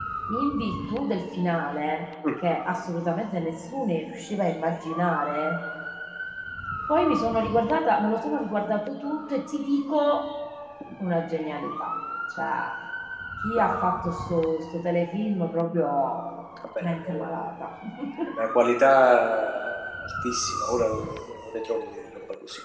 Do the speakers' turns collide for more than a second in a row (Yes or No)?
No